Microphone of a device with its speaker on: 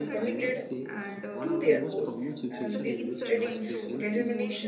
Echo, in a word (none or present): present